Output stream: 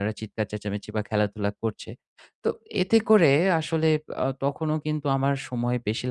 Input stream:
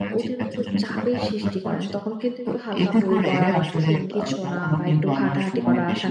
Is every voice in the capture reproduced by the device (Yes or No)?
No